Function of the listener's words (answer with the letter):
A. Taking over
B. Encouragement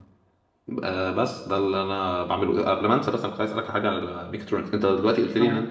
B